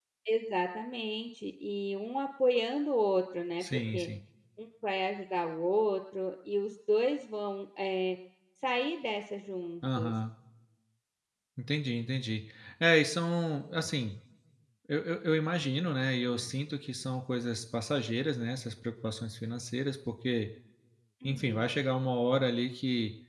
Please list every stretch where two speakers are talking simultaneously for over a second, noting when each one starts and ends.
none

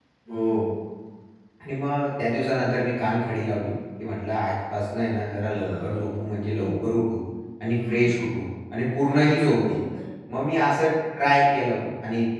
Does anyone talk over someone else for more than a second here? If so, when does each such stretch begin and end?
none

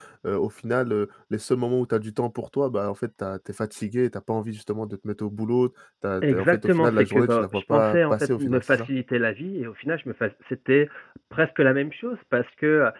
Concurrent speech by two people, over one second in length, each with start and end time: 6.2-8.8

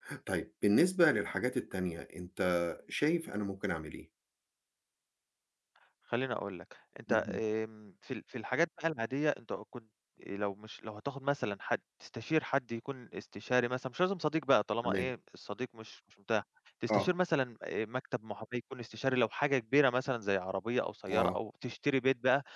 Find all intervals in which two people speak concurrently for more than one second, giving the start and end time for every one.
none

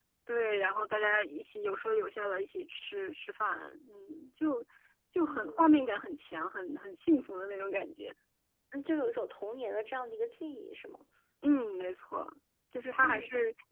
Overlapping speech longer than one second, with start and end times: none

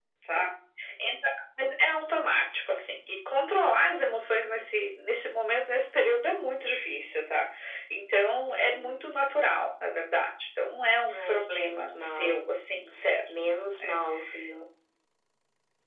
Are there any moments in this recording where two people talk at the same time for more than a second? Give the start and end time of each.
11.1-12.4

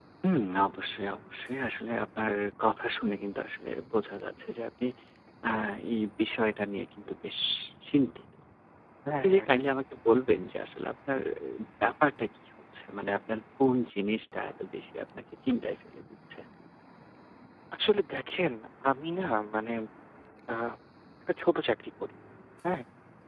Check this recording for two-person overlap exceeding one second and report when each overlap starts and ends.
none

